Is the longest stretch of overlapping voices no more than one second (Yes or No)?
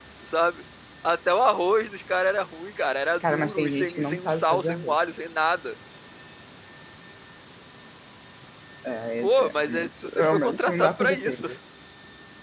No